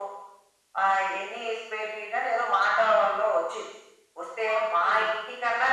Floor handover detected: No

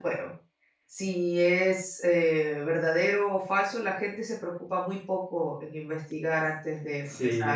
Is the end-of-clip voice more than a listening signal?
Yes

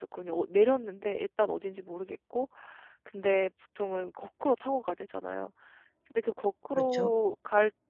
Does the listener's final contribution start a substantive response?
No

